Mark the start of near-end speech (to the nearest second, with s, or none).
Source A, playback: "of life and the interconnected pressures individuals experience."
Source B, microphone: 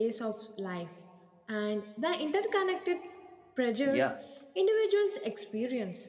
4 s